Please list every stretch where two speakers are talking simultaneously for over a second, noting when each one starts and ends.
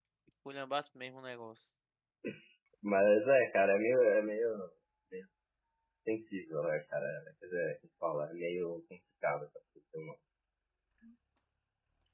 none

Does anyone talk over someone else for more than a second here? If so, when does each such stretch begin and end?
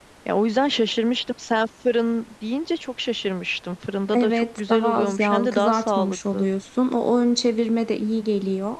4.1-6.5

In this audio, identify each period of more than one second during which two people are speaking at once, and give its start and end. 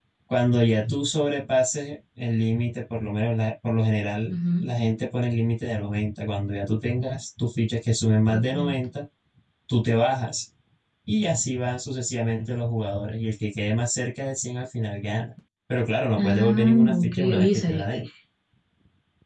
16.2-17.8

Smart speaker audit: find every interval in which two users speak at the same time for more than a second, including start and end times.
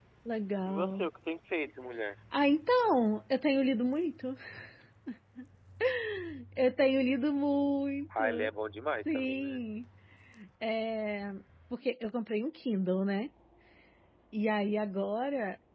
none

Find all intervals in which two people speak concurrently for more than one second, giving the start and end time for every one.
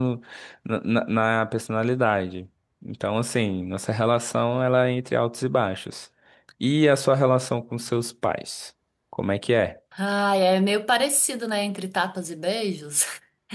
none

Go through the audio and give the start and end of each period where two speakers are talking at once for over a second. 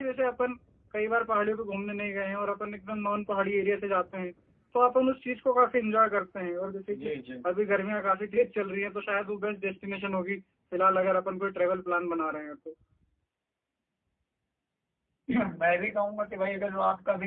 none

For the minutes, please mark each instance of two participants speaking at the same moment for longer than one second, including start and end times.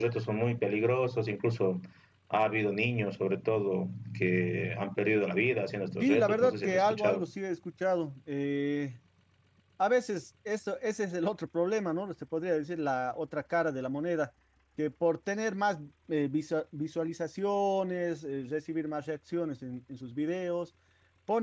6.0-7.2

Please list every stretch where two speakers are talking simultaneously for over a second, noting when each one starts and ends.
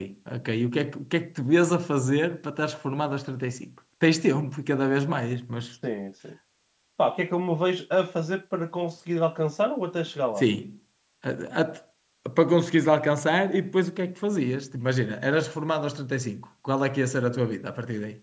none

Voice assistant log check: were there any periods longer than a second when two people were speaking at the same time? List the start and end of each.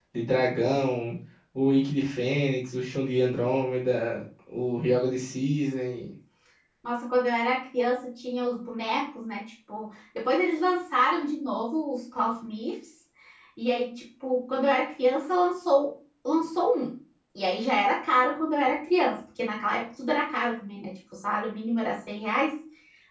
none

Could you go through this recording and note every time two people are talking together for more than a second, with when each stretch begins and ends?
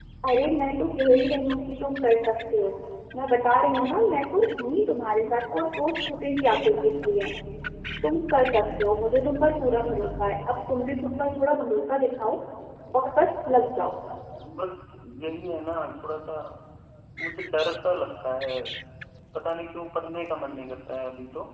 none

